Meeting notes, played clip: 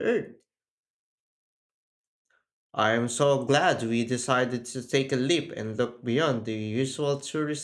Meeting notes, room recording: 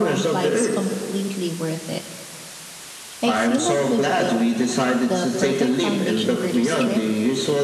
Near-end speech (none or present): present